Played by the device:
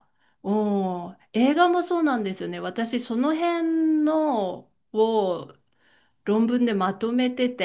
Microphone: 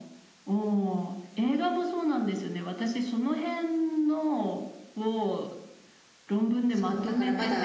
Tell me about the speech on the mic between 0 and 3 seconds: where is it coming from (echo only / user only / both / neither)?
echo only